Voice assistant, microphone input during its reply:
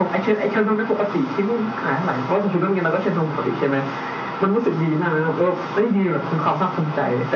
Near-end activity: none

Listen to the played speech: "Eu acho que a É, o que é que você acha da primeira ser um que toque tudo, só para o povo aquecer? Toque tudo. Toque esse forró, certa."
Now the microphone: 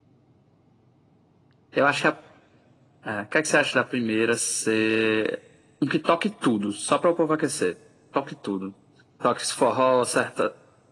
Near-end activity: none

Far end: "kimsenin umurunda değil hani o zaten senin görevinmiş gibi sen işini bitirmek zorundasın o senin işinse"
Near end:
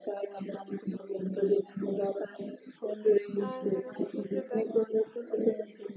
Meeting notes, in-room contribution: present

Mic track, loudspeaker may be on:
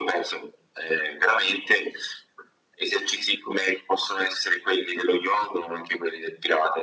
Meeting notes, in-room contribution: none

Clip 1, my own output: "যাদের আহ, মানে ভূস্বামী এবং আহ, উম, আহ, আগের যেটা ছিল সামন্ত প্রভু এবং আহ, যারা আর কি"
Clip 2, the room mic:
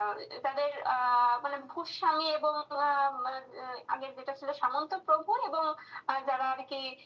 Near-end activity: none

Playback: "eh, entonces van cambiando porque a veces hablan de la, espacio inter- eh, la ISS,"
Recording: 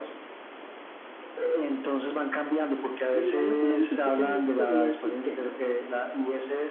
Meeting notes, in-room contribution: present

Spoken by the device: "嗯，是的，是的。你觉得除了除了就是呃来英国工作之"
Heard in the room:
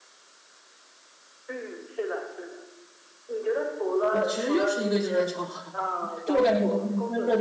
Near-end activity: present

